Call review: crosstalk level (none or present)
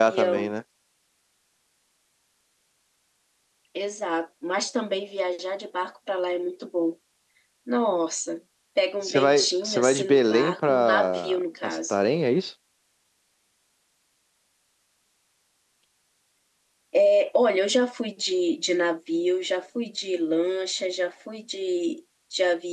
present